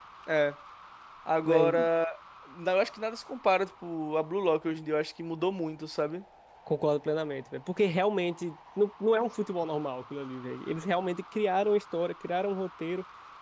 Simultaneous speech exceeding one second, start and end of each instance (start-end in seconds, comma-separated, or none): none